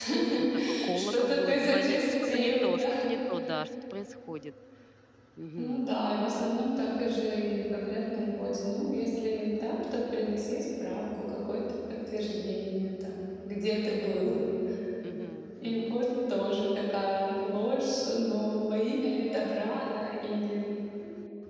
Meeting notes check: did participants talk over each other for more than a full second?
Yes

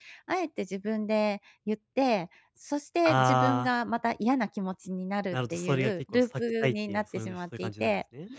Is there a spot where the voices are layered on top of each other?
Yes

